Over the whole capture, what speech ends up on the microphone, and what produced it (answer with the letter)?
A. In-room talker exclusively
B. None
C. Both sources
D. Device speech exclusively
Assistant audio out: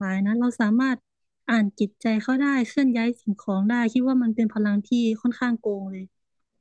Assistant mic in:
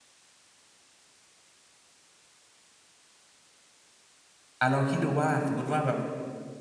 A